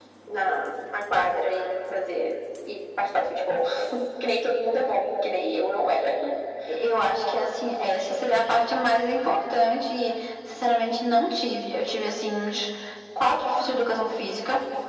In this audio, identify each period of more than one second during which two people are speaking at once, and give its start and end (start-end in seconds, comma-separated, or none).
none